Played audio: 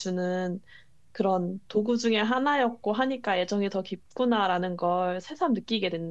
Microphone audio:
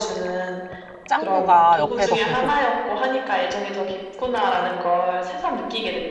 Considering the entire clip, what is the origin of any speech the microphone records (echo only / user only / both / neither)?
both